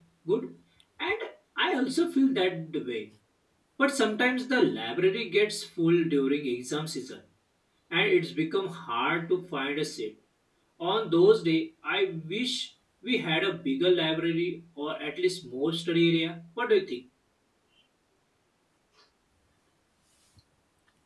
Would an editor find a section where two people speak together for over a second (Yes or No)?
No